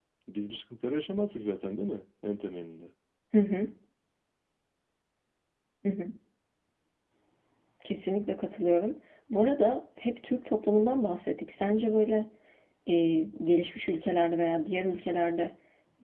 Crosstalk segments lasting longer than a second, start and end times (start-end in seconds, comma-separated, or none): none